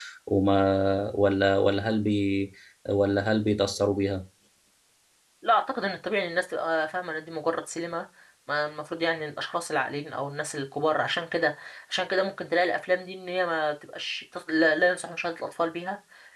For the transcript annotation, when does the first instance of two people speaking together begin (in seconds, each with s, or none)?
none